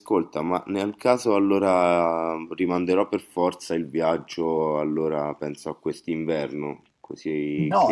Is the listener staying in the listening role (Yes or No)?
No